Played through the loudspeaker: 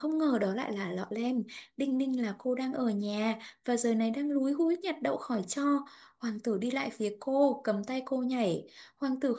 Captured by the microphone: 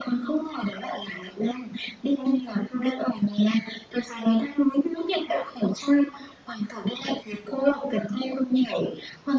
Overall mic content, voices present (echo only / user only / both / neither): echo only